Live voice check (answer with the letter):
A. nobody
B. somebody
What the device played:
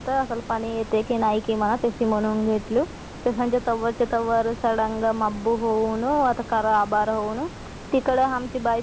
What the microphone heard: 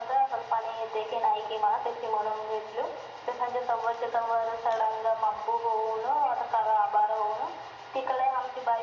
A